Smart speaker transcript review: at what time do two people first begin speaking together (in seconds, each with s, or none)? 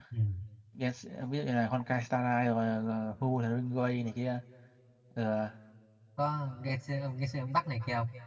none